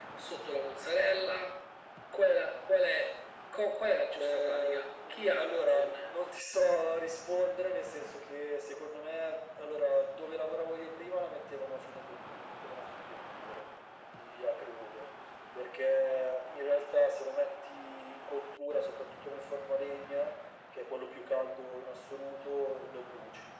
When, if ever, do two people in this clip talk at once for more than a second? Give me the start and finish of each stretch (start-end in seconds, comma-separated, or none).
4.2-6.1